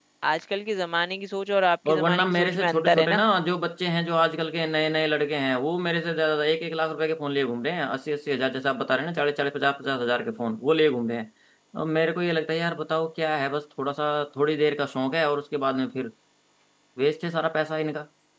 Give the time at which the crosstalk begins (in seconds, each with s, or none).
1.9 s